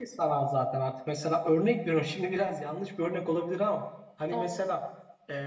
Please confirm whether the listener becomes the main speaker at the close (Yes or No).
No